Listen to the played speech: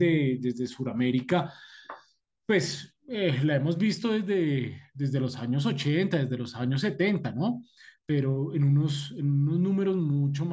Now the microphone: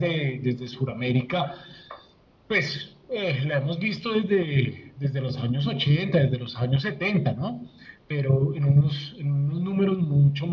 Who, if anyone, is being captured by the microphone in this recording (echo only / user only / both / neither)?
echo only